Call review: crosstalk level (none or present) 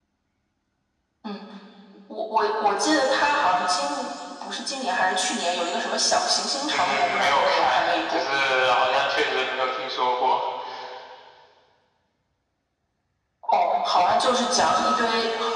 present